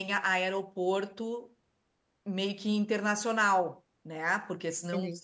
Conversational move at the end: listening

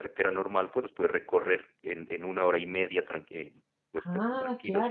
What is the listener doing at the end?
taking over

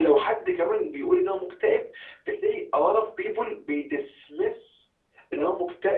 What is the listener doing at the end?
listening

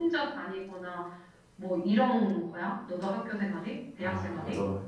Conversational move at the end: taking over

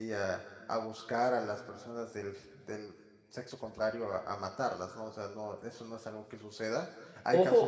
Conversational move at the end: taking over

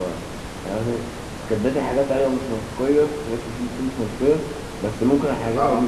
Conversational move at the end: listening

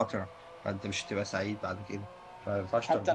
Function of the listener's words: taking over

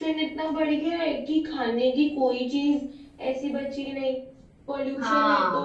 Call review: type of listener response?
listening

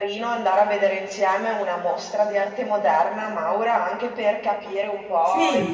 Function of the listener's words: listening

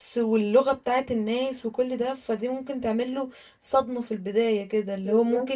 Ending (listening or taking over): listening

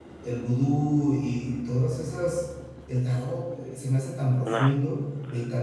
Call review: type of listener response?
listening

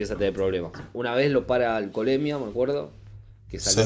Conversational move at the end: listening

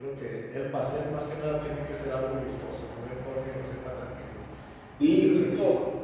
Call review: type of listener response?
taking over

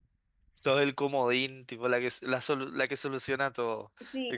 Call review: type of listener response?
taking over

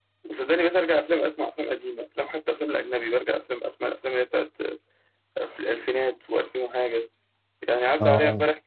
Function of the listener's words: listening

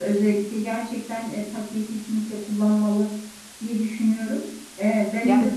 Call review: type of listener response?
listening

